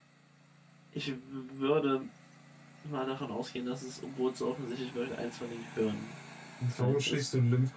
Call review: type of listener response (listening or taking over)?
taking over